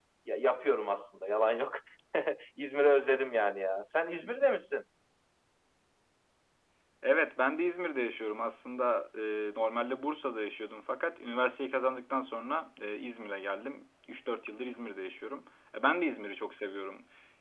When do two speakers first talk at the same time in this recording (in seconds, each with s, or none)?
none